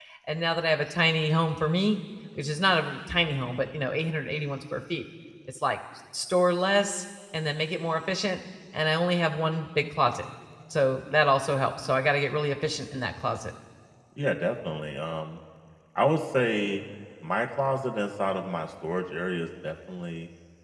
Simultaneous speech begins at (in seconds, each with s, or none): none